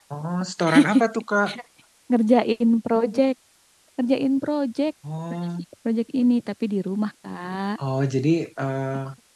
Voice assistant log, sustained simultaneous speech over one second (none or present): none